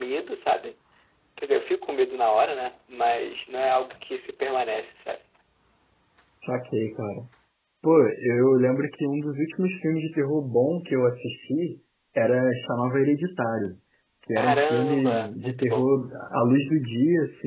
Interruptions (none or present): present